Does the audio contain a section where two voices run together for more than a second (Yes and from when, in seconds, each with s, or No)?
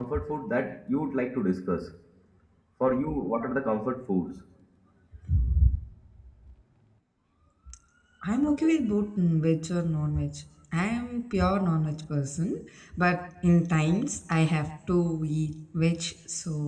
No